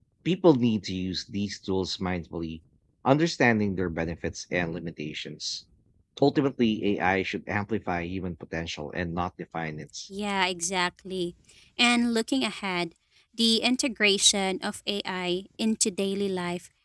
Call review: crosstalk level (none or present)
none